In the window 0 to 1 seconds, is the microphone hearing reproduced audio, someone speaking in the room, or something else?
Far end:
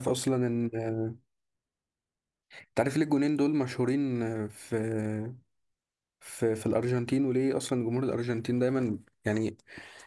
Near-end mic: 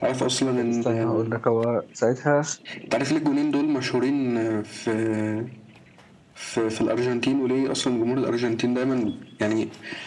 both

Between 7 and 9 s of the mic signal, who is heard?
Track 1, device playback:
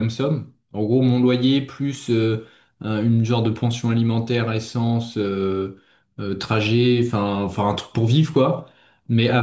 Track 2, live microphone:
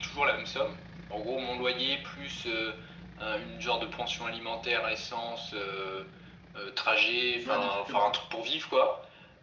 both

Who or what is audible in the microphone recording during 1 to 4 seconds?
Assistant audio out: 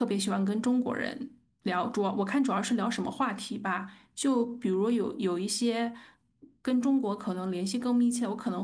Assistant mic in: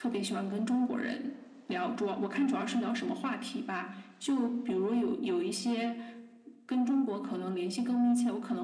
echo only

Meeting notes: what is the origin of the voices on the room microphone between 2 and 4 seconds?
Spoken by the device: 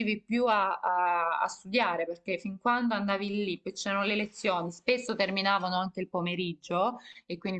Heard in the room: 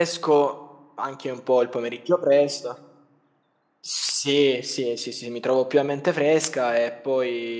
user only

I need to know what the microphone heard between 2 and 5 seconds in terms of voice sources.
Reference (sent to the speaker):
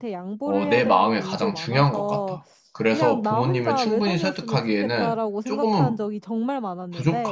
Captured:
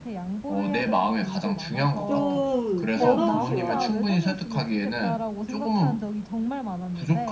both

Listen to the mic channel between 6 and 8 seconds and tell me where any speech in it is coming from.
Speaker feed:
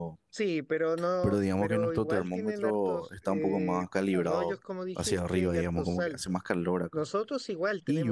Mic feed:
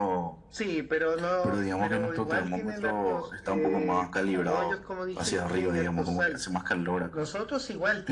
echo only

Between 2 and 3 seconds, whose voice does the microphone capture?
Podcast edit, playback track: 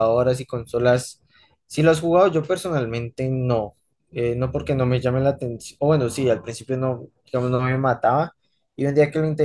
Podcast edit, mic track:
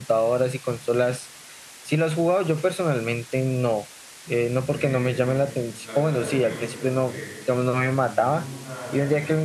echo only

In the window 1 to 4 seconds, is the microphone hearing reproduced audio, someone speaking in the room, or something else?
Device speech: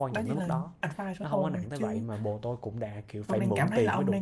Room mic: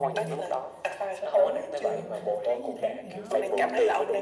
both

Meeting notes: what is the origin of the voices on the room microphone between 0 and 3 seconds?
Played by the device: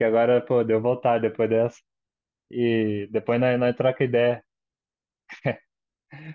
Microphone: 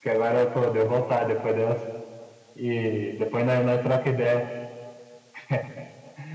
echo only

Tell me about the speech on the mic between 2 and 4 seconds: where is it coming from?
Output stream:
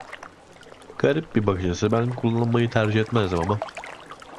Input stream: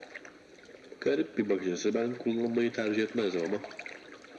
echo only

